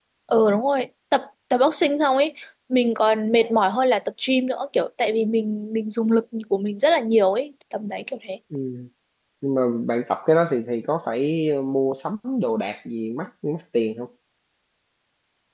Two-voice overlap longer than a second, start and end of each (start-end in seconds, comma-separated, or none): none